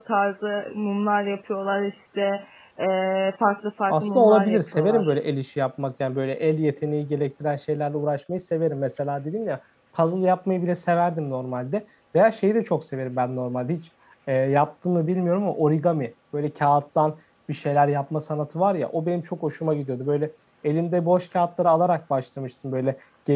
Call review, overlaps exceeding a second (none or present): present